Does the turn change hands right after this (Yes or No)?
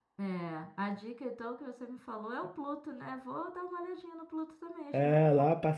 Yes